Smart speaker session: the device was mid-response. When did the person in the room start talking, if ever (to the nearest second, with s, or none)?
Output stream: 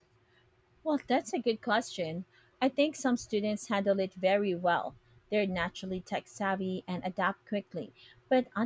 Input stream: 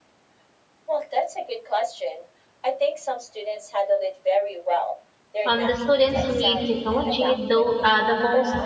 5 s